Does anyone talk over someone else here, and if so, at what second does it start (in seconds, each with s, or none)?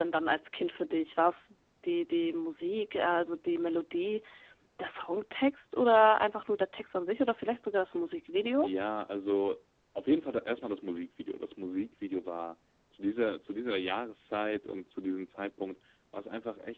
none